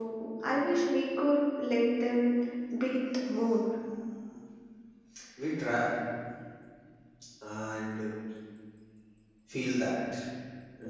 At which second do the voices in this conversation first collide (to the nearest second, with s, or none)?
none